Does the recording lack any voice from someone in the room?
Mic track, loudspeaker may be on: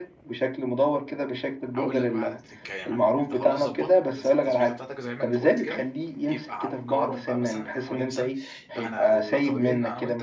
No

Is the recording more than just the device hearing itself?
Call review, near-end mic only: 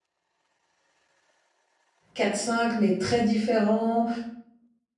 Yes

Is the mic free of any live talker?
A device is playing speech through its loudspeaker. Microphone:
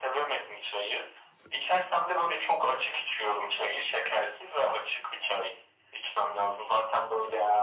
Yes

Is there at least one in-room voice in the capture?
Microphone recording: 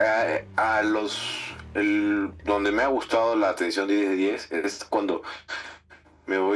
No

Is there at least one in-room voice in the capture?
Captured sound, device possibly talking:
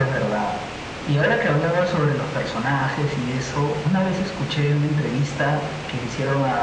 No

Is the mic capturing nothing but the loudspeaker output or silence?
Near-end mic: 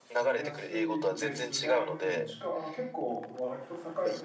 No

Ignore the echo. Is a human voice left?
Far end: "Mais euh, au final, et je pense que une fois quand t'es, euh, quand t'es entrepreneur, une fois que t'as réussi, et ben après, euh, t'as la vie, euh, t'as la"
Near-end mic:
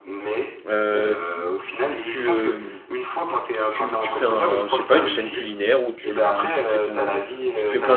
Yes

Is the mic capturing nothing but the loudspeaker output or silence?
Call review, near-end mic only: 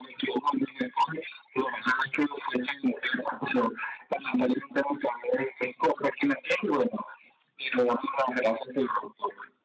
Yes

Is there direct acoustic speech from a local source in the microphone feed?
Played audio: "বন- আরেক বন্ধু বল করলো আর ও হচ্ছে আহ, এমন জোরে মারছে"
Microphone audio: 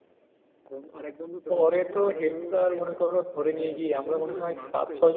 Yes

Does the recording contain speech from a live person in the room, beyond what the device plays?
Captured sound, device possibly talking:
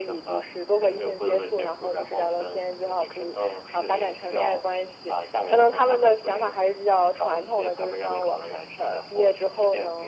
No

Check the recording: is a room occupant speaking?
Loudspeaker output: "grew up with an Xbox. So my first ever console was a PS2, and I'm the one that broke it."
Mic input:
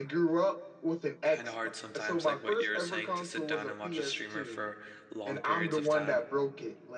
Yes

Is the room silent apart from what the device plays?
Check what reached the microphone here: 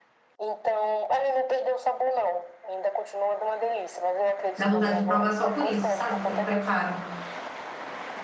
No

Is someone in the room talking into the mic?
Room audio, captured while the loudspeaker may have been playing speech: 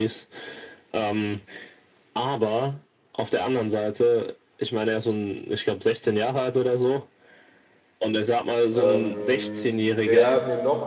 Yes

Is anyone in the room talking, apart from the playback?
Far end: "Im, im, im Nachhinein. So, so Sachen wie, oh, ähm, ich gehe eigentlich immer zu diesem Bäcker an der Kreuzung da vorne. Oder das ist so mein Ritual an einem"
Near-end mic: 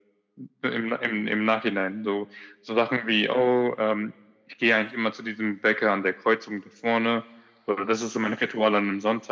No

